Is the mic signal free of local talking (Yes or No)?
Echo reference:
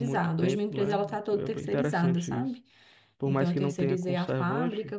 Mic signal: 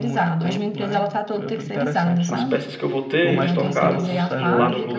No